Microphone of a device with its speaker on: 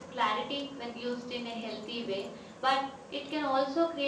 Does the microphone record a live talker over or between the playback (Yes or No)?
No